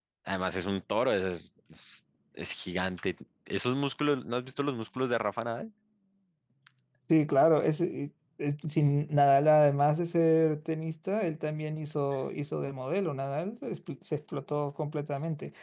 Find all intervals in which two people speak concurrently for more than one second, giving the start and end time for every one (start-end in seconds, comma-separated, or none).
none